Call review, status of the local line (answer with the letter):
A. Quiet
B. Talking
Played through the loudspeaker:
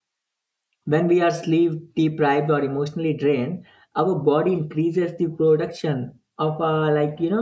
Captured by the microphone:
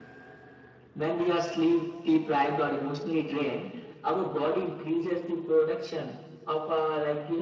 A